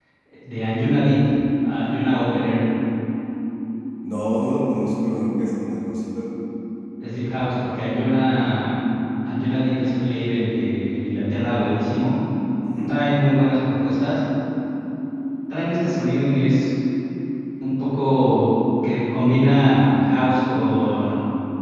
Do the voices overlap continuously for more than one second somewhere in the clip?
No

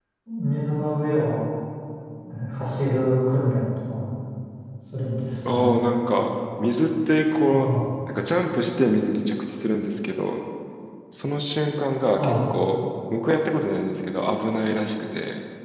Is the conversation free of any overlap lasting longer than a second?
Yes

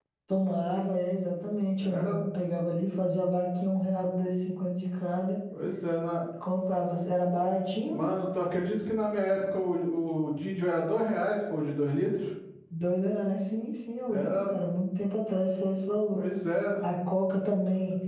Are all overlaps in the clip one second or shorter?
Yes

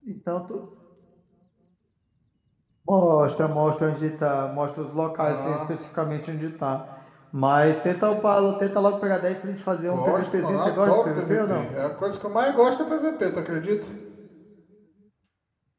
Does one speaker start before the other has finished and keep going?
Yes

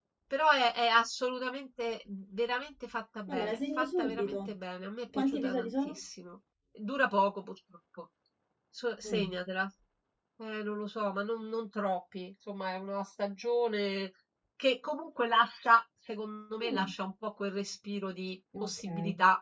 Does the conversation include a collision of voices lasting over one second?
Yes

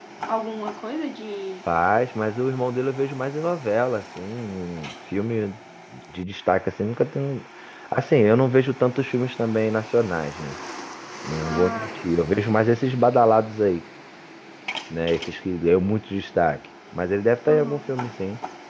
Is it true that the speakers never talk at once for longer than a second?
Yes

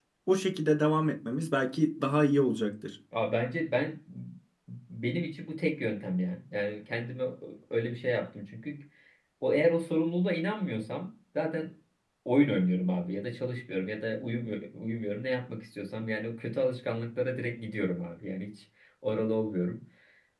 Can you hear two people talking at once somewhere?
No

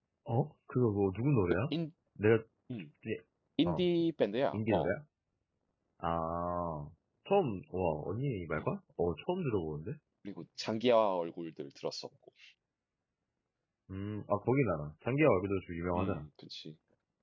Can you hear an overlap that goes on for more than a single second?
No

